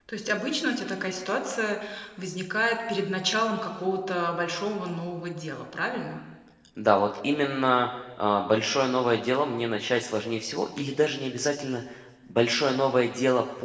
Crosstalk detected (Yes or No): No